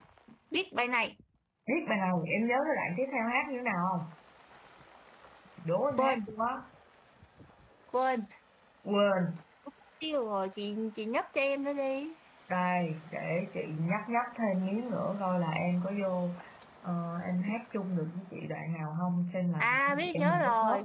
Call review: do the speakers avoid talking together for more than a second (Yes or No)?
No